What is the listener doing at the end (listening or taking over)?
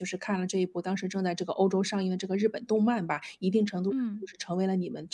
listening